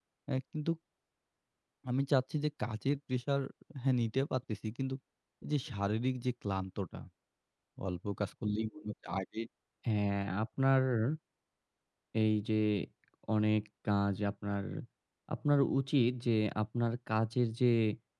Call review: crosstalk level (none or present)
none